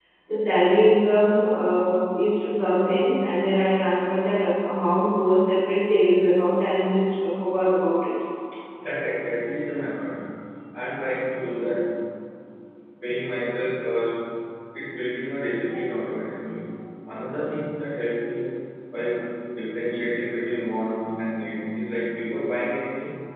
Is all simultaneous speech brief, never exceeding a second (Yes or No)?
Yes